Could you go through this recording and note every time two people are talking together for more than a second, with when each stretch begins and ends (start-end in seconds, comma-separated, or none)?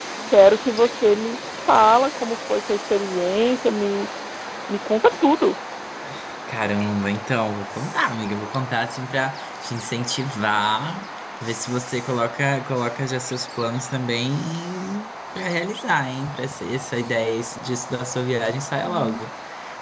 none